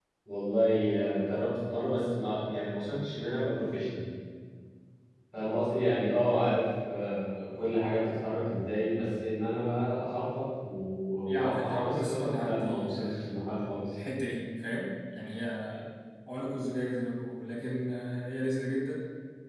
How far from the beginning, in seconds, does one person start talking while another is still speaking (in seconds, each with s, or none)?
11.2 s